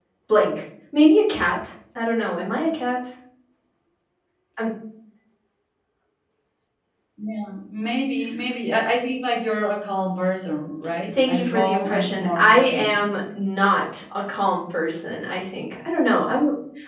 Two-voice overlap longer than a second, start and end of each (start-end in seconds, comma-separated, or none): 11.2-13.0